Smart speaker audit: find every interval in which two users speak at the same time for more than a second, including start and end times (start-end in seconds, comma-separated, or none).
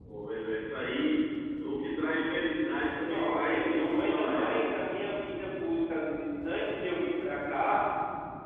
3.0-4.7